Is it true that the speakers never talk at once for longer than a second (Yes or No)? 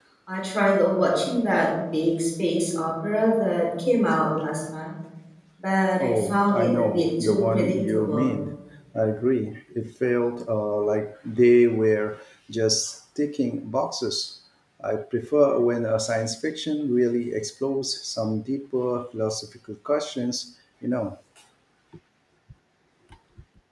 No